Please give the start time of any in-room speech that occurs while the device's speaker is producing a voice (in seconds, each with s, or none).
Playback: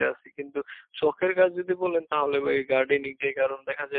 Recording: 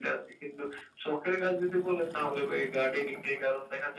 none